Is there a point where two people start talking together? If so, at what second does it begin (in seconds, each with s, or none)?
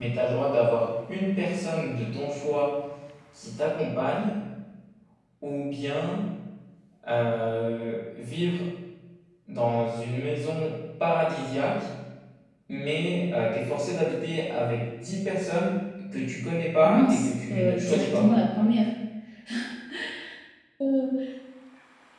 16.8 s